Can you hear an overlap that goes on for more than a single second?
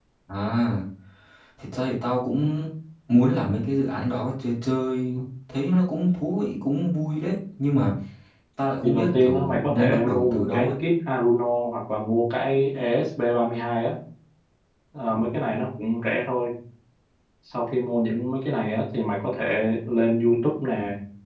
Yes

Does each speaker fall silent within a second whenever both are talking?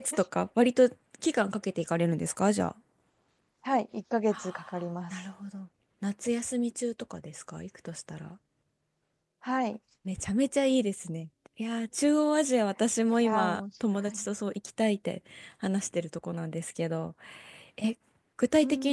Yes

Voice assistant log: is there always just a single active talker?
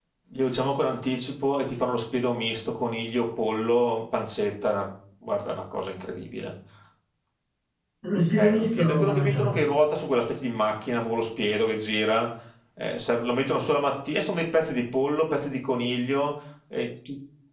No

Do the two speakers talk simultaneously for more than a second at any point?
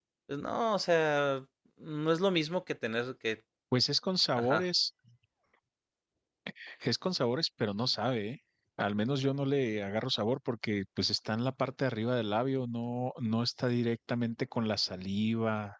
No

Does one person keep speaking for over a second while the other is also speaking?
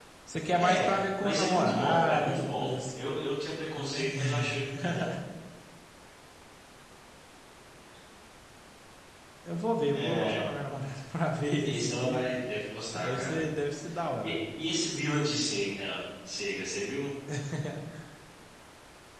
Yes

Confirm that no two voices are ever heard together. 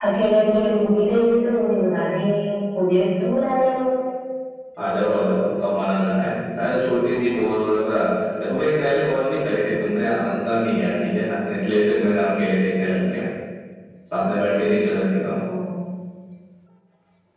Yes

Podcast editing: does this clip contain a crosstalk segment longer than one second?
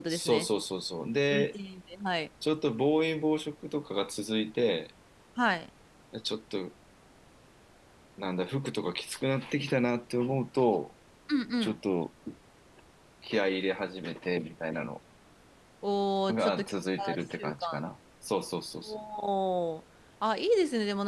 Yes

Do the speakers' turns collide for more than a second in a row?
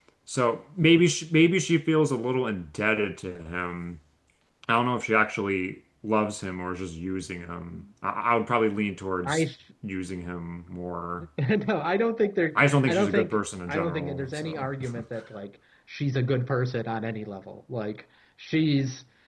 Yes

